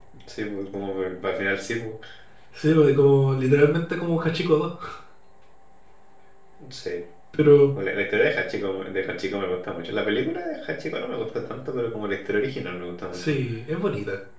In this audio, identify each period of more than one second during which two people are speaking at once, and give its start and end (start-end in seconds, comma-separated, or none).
none